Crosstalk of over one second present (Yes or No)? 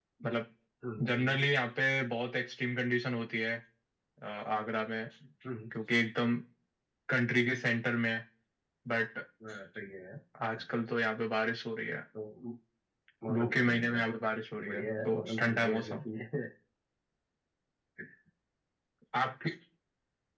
Yes